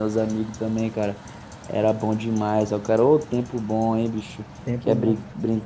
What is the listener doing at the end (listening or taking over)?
listening